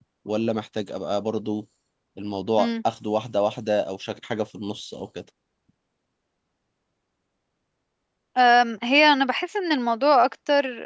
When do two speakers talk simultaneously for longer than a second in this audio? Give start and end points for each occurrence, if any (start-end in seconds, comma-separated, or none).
none